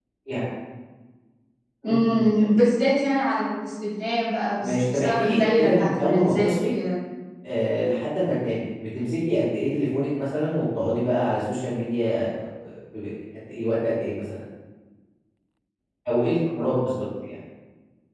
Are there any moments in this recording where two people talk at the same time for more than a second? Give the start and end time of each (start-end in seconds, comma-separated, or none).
4.6-6.5